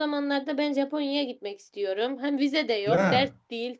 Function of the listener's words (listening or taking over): listening